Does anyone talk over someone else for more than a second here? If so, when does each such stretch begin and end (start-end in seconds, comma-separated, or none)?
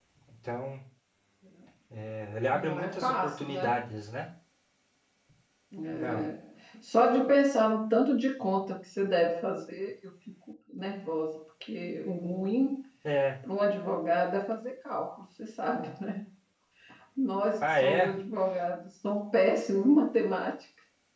2.5-3.8